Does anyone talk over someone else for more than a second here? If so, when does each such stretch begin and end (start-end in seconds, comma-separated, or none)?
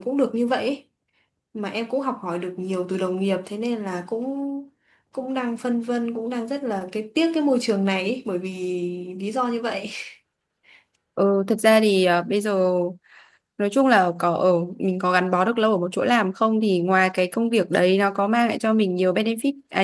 none